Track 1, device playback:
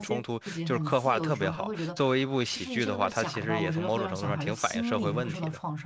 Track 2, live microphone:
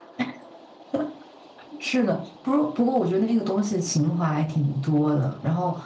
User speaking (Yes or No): Yes